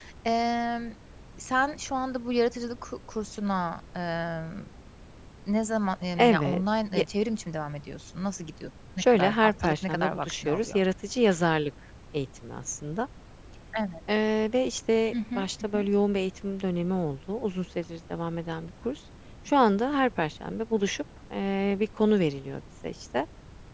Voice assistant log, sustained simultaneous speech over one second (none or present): present